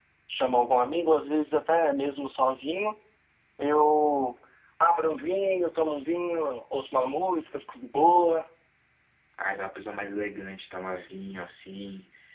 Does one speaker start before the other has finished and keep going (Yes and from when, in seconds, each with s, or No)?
No